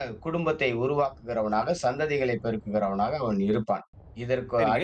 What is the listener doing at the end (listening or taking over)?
taking over